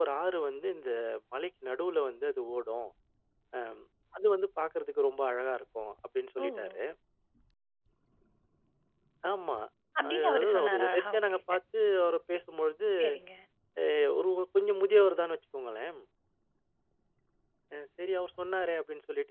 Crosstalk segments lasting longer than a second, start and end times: 10.1-11.4

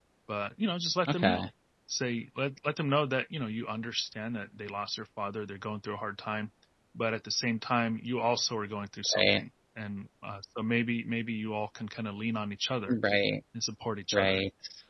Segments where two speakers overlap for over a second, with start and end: none

